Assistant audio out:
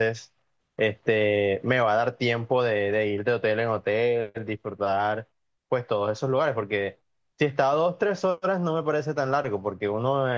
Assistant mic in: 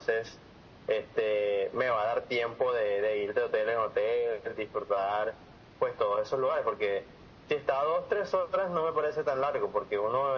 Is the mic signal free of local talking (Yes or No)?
Yes